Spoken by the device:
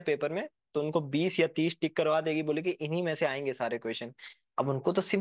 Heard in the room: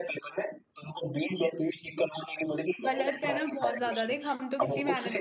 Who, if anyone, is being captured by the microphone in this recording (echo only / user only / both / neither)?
both